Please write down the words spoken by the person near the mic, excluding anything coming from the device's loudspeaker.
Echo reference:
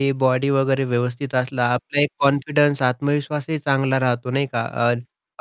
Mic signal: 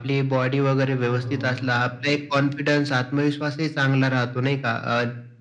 हो, हो.

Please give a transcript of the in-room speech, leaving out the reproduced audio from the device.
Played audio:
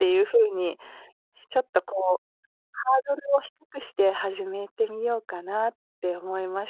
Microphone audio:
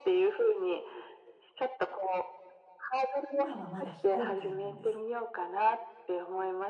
今は、まだ非公開なんです。

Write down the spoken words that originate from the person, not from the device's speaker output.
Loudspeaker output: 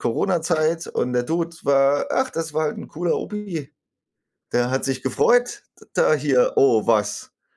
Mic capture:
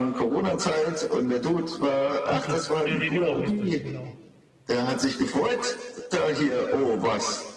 bin to ja, ja, genau, richtig, genau.

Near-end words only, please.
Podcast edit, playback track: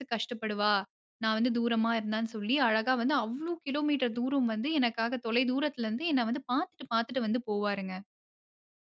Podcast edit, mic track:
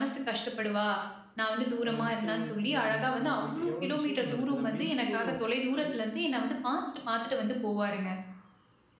அ ஒருத்தர் இருக்கும்போது இன்னொருத்தரோட போயிட்டு எவ்ளோ விஷயங்கள் நடக்குது. அப்டி இருக்கும்போது ஒருத்தருக்காக

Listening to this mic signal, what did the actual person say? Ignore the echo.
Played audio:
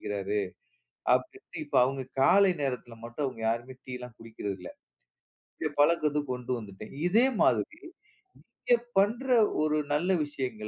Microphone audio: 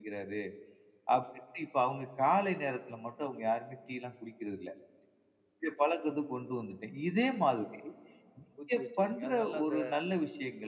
ஊத்தி வச்சுருவீங்க. அது நல்ல இந்த

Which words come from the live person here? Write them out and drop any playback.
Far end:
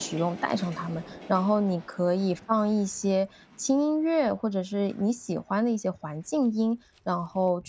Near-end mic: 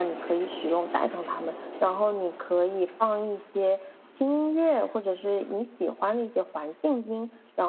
none

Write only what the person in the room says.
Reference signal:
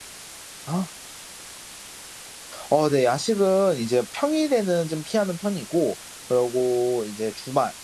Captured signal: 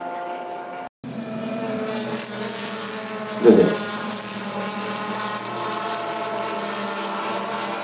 네네.

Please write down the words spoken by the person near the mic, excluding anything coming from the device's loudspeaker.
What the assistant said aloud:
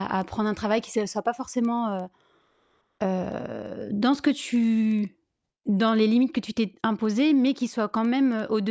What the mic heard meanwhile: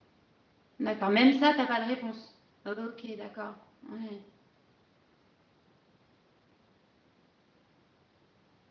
D'accord, même ça, tu as pas de réponse. OK, d'accord. Ouais.

